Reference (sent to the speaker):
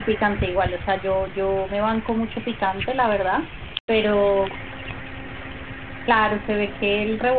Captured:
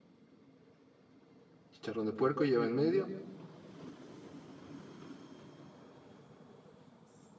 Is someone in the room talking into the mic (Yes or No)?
Yes